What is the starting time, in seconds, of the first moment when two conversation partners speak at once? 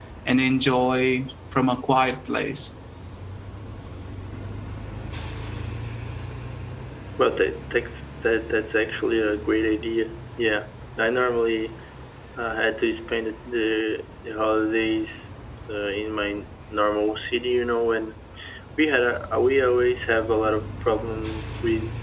none

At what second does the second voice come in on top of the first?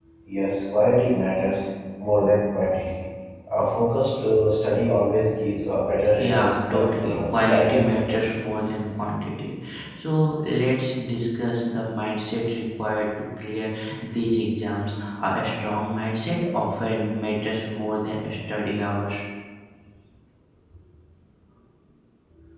6.2 s

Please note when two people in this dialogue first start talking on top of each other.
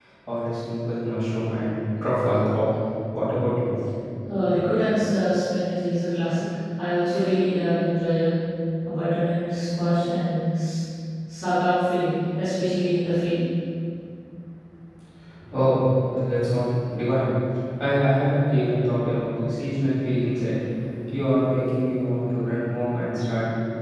none

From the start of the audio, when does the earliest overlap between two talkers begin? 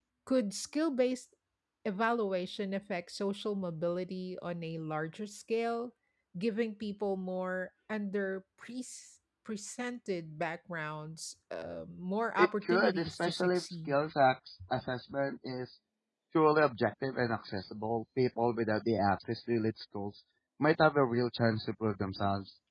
12.4 s

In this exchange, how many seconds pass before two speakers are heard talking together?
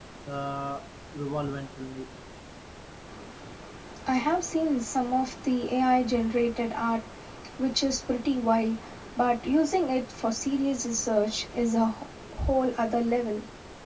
none

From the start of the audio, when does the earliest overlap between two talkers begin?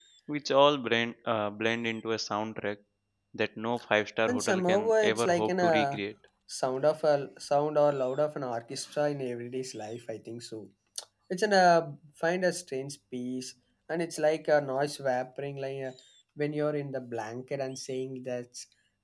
4.3 s

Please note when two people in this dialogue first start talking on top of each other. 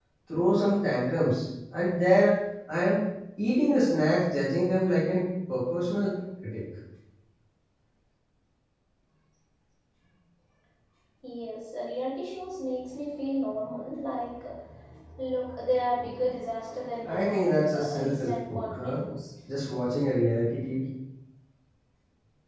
17.1 s

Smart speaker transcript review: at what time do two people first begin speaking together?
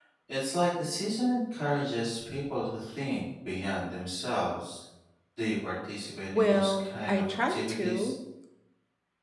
6.3 s

